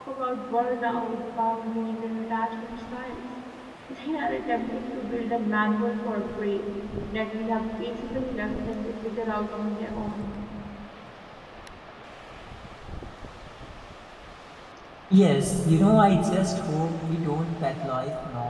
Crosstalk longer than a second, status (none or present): none